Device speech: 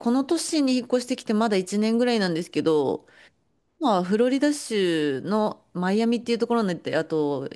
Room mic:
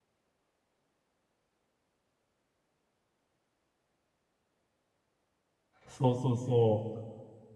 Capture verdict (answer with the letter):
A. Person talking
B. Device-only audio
A